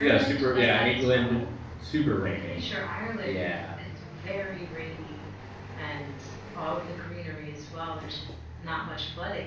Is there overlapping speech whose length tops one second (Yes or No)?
Yes